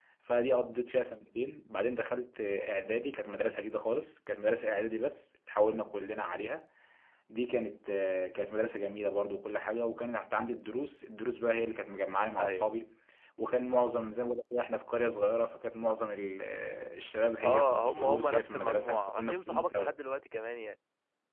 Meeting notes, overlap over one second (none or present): present